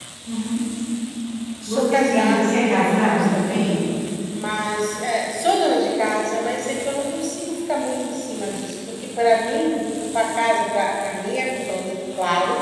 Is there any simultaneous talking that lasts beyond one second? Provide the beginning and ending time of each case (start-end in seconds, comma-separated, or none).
1.7-3.8